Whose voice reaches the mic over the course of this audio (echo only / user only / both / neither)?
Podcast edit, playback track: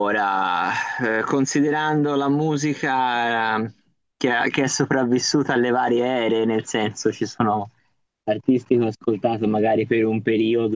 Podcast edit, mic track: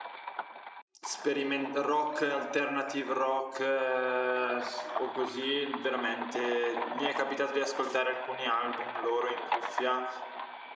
user only